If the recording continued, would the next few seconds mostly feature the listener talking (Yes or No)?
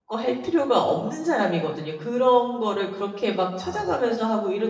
No